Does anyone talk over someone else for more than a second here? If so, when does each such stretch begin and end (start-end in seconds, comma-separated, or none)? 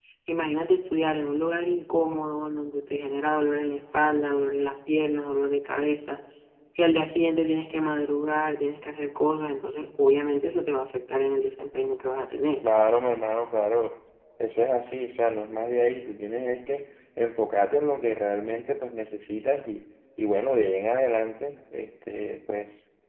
none